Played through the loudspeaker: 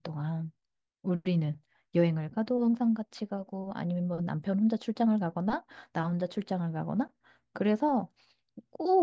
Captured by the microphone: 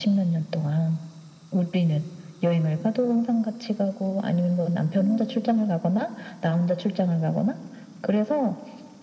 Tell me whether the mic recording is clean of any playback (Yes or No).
No